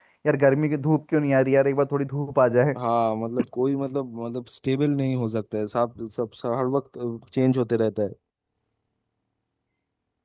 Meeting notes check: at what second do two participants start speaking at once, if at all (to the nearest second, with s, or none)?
none